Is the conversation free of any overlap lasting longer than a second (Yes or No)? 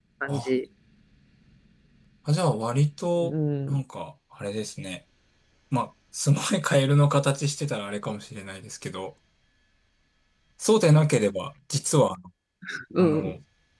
Yes